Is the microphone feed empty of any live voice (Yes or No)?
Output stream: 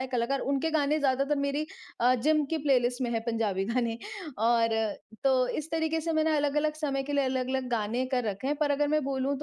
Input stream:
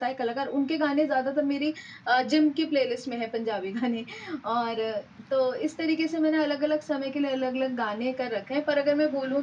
Yes